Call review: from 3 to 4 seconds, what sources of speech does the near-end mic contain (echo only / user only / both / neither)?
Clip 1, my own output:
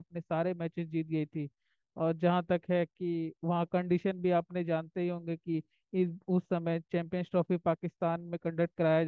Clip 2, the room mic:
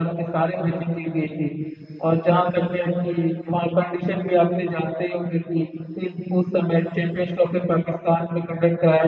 echo only